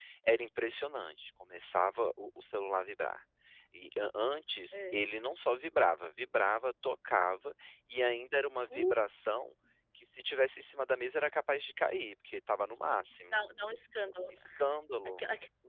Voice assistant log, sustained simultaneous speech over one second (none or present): none